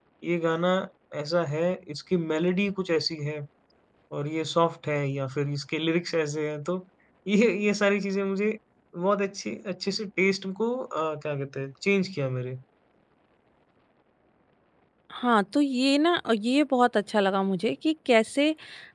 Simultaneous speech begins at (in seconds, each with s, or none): none